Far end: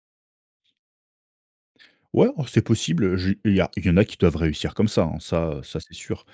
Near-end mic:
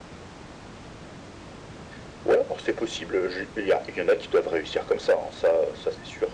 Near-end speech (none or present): none